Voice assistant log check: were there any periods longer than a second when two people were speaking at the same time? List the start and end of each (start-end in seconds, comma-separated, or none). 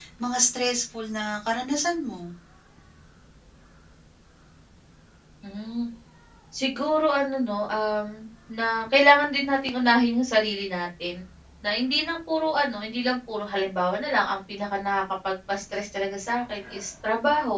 none